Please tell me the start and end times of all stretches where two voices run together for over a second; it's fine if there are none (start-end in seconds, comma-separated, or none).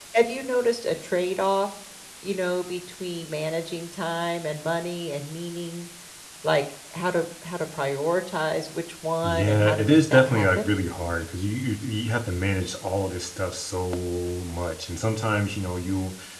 9.2-10.7